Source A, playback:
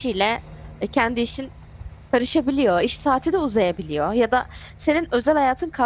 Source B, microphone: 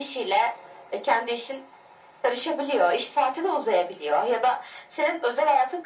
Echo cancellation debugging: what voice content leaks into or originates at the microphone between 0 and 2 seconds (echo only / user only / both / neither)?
echo only